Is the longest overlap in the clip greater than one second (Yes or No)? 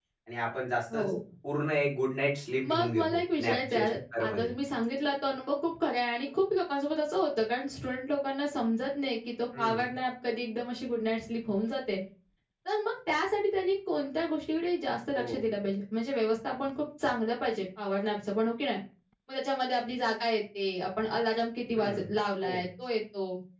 Yes